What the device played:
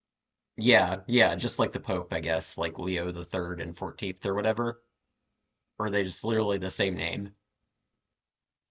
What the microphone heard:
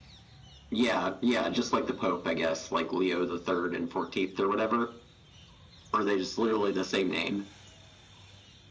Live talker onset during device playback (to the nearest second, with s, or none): none